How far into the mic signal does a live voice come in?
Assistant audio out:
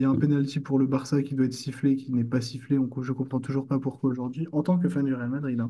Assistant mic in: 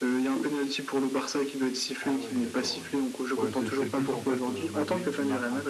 2.0 s

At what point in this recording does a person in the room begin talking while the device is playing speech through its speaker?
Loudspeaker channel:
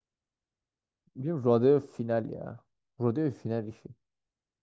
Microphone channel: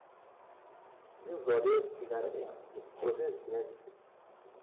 1.9 s

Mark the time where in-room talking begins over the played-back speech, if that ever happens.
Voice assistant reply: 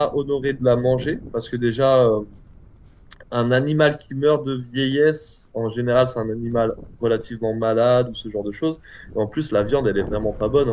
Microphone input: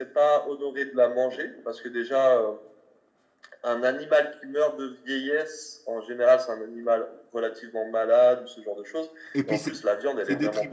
9.3 s

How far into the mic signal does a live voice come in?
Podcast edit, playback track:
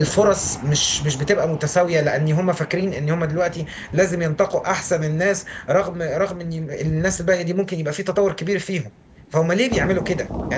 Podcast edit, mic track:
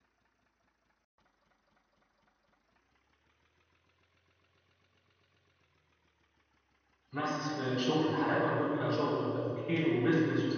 7.1 s

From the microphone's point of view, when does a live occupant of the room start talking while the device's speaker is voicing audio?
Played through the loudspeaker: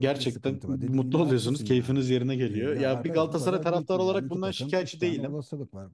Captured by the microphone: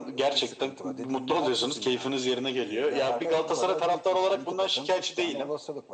none

